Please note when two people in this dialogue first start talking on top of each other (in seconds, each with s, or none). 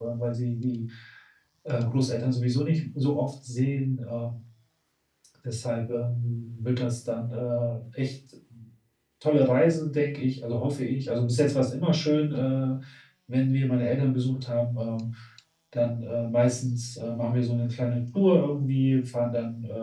none